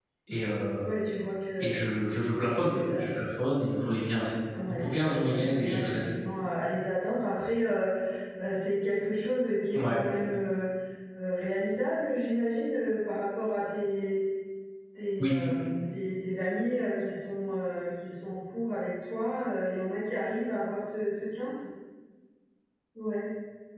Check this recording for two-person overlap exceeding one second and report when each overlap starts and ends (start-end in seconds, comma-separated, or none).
4.7-6.0